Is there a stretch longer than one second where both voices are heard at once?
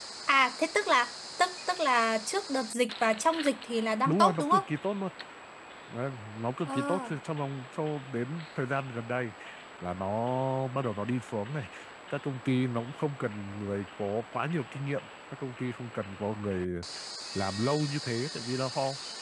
No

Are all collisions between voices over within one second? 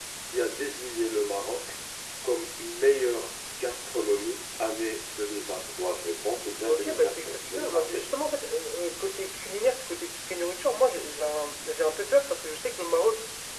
No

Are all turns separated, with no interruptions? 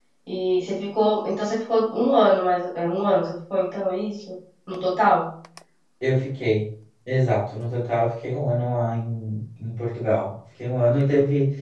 Yes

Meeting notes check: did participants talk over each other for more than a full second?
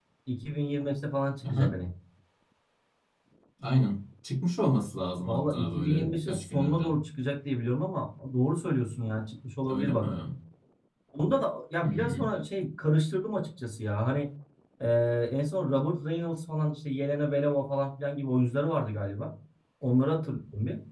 Yes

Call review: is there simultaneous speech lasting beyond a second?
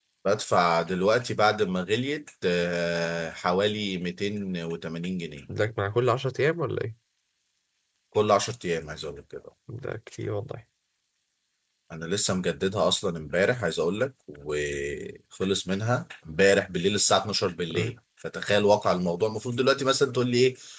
No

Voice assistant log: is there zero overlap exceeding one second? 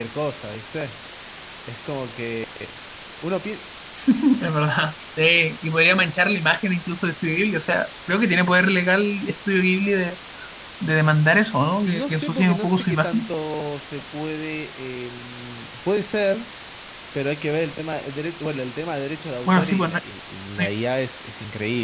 No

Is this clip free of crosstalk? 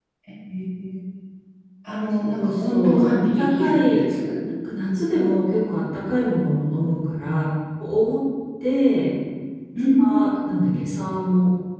No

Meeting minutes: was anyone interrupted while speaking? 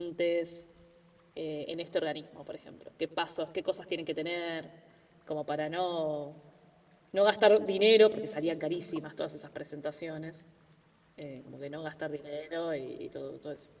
No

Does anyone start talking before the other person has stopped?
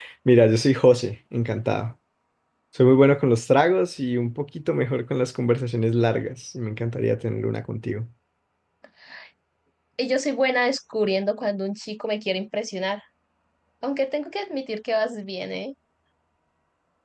No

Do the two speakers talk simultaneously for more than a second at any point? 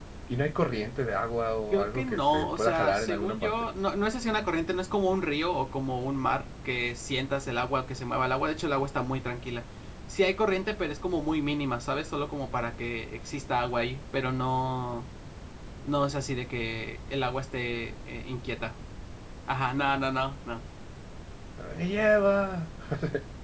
Yes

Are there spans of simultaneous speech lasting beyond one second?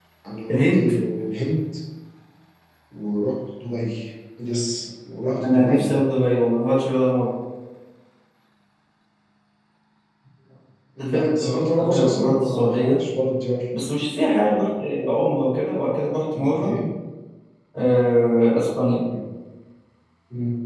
Yes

